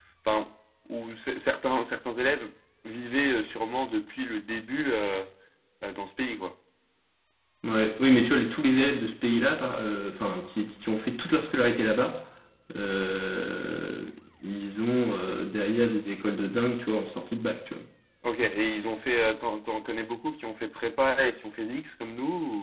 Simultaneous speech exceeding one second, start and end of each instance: none

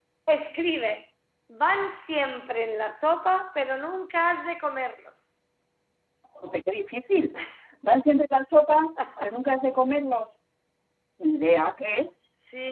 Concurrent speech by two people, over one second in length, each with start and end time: none

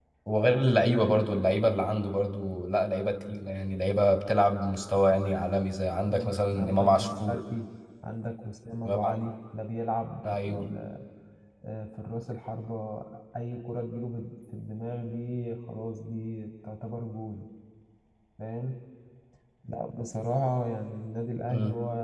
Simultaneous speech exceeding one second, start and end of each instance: 6.1-7.4

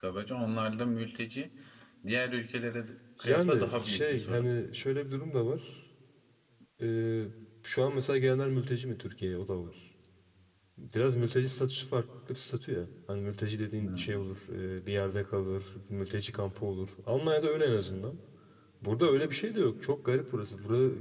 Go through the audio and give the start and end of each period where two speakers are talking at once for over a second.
3.2-4.5

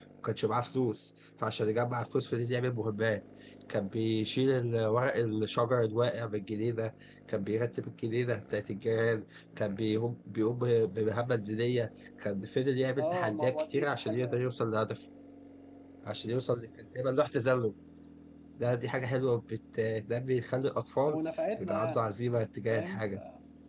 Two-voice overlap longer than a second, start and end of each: 13.0-14.4

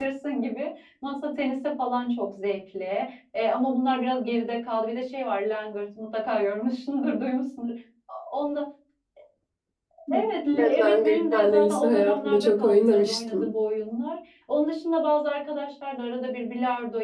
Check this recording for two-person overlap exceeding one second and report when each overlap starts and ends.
10.6-13.4

